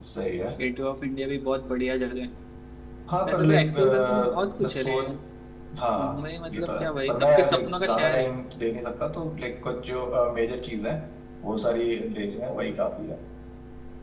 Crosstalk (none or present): present